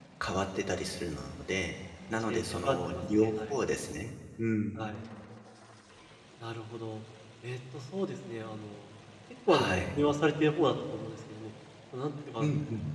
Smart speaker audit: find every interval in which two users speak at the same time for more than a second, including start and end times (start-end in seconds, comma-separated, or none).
2.1-3.6